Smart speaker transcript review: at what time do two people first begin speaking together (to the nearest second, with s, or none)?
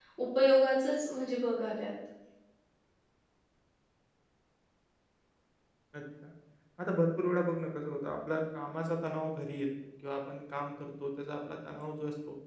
none